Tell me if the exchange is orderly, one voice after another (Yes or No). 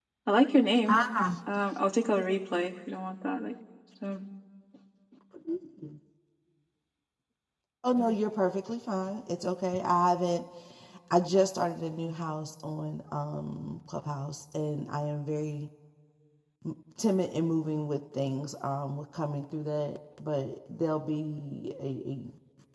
Yes